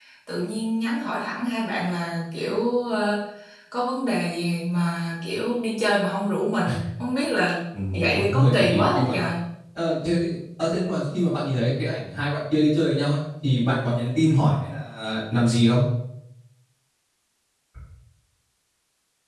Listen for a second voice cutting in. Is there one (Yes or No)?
Yes